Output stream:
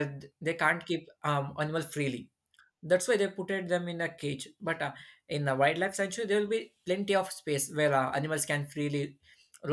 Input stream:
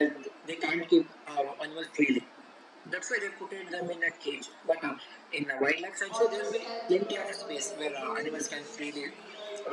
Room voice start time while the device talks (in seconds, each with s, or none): 6.1 s